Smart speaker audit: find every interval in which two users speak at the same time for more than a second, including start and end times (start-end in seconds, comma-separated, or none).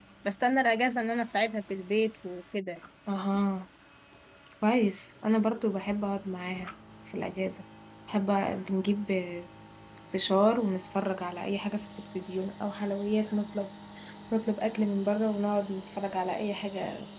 none